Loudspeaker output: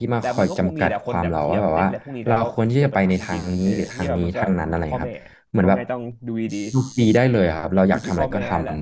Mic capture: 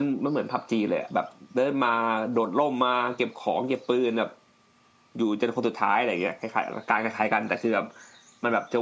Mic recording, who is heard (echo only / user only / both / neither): user only